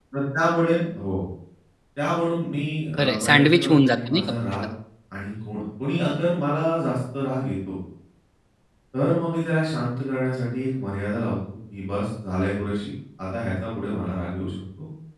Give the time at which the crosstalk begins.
3.0 s

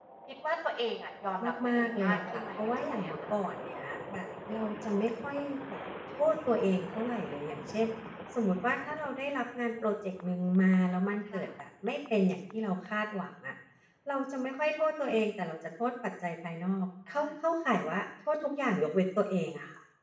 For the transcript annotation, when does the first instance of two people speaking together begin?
1.7 s

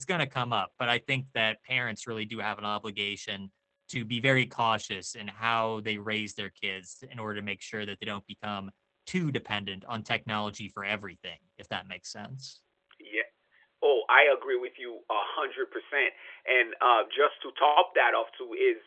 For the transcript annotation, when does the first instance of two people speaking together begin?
none

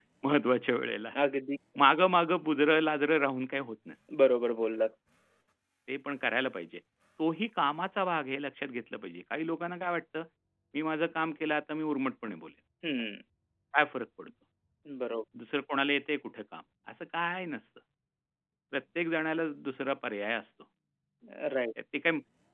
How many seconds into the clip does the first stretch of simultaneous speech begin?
none

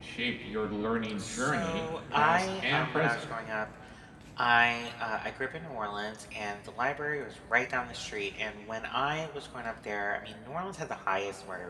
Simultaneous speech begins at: 1.2 s

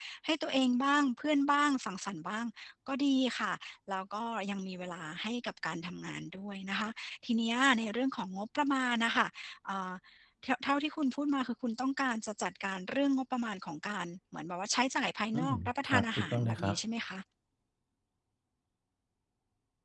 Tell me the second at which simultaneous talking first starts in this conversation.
15.3 s

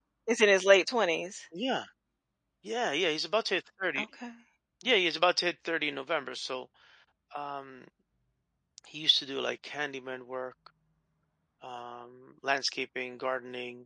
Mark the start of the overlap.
none

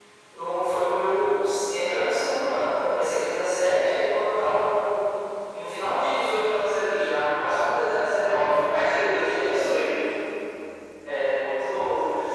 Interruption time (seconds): 7.7 s

